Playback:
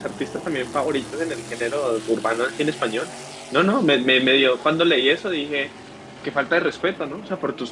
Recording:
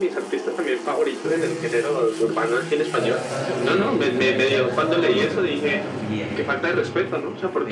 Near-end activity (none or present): present